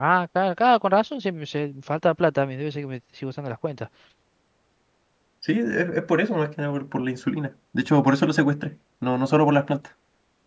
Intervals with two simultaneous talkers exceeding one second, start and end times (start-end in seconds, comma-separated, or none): none